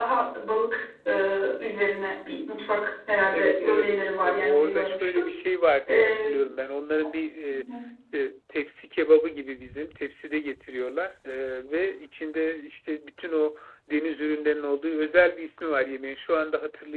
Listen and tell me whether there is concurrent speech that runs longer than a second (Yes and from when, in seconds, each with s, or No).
Yes, from 3.3 s